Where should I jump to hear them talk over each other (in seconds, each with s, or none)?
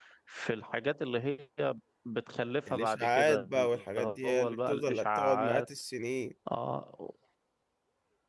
2.7 s